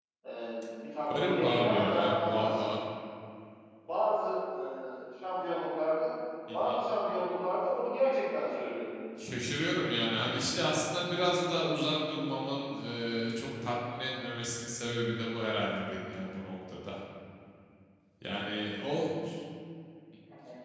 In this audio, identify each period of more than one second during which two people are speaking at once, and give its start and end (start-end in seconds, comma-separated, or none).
1.1-2.5